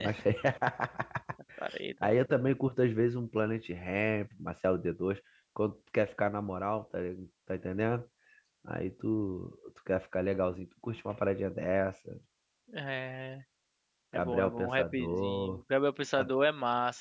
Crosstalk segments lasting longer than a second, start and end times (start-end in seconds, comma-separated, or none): 14.2-15.6